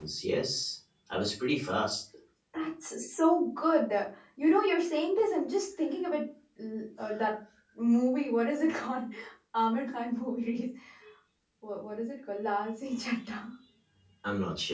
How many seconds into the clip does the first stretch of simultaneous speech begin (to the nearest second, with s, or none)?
none